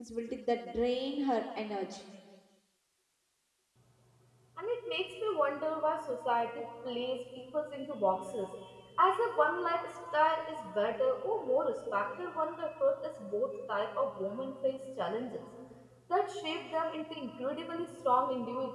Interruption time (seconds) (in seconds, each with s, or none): none